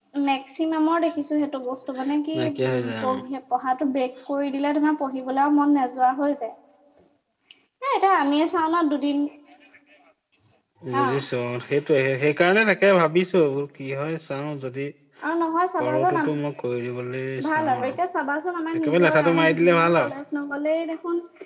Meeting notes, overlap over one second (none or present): present